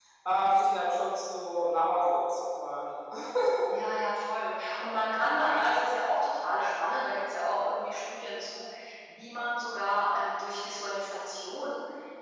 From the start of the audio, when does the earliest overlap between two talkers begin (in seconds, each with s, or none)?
none